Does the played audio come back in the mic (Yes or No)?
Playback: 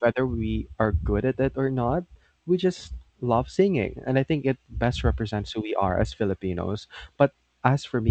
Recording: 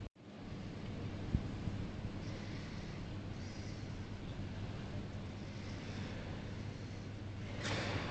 No